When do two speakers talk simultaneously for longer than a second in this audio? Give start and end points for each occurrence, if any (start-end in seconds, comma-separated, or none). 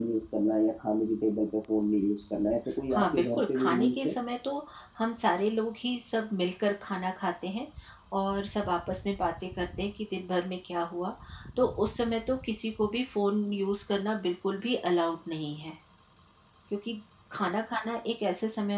2.9-4.1